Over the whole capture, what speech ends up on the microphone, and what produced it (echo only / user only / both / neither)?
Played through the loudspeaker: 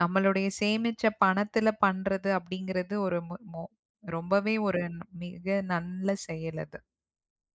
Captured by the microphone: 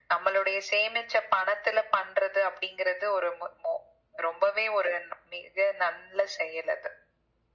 echo only